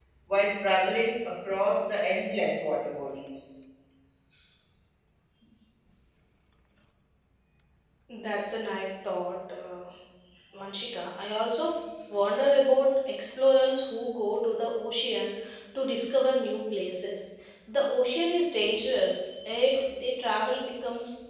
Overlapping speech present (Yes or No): No